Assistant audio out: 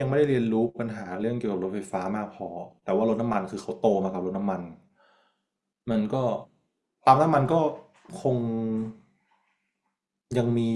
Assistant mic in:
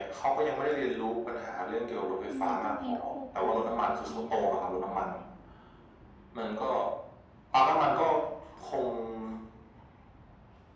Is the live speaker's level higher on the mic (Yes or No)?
No